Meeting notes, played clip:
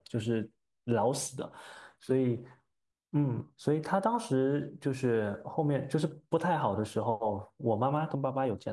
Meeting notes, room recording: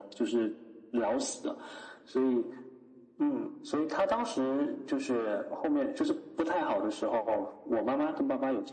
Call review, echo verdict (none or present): present